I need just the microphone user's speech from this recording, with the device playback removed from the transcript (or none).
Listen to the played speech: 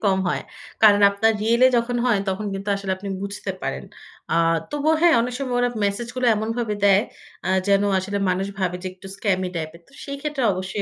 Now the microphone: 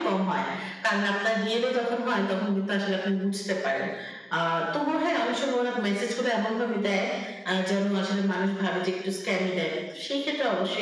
none